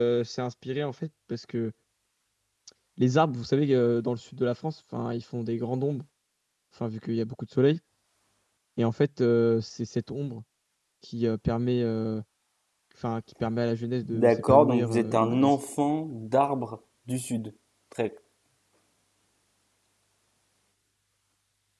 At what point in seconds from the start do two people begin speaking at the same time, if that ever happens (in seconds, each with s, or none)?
14.0 s